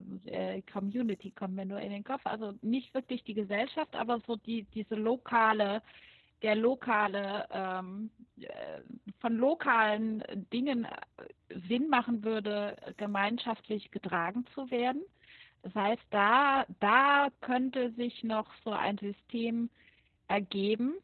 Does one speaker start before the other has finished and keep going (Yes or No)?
No